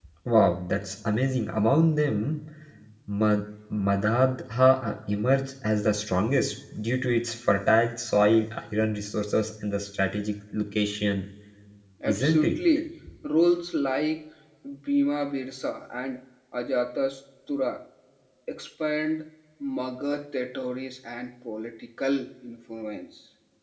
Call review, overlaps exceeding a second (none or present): none